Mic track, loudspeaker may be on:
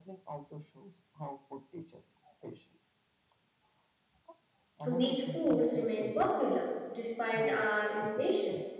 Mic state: both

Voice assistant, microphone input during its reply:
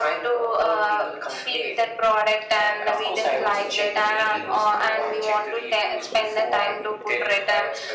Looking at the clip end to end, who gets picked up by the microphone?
echo only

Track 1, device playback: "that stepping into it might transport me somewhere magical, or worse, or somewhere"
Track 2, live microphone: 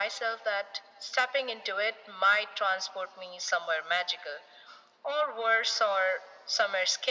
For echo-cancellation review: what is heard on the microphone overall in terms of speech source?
echo only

